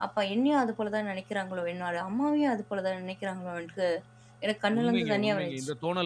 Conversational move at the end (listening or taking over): taking over